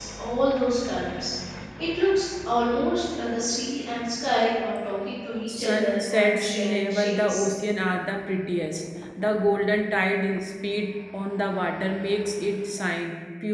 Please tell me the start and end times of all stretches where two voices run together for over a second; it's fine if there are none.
5.5-7.5

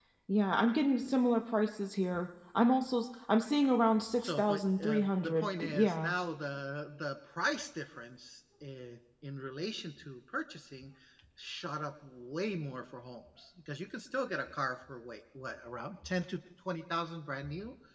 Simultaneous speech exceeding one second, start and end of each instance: 4.2-6.1

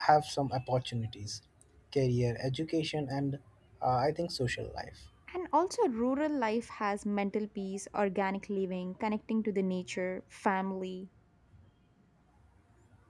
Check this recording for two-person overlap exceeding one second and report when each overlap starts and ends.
none

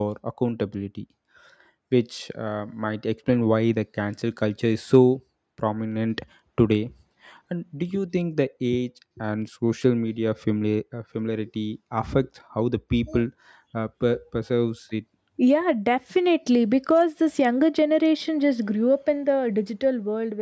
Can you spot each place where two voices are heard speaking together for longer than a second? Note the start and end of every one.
none

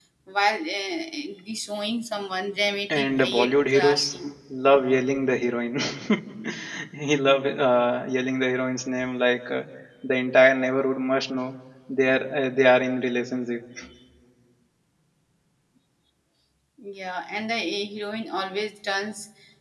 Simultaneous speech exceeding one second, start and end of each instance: 2.9-4.2

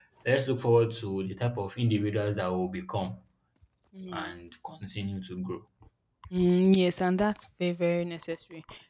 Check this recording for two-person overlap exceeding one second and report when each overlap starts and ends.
none

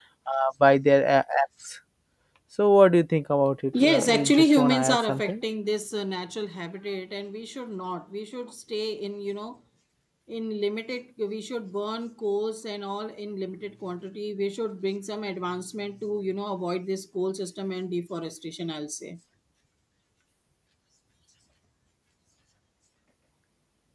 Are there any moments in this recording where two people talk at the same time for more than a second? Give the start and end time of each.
3.8-5.4

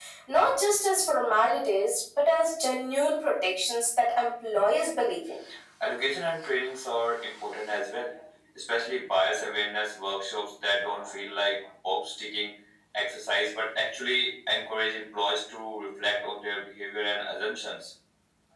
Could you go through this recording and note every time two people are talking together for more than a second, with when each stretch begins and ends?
none

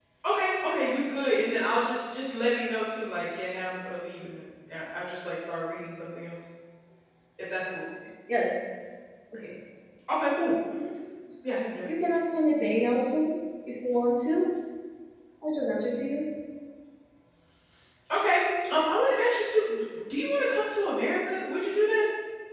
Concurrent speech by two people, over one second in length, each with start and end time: none

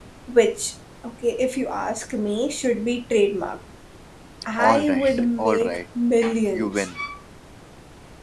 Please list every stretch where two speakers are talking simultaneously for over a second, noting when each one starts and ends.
4.6-5.8

